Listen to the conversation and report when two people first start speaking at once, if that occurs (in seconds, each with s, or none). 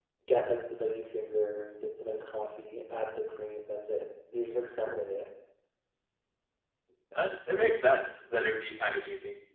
none